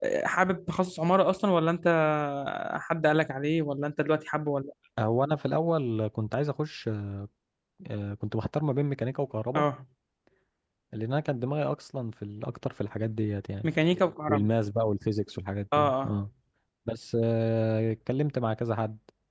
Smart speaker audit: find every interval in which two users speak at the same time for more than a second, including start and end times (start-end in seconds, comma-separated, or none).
none